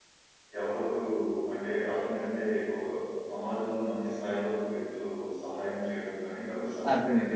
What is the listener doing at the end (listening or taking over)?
taking over